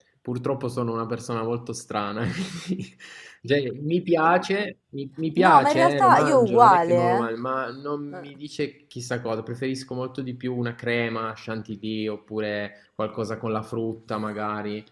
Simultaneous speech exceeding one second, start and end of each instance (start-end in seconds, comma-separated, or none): 5.4-7.3